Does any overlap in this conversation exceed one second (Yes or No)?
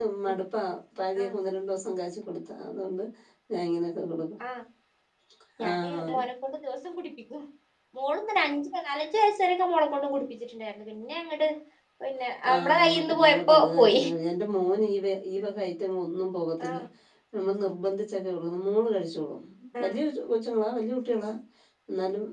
Yes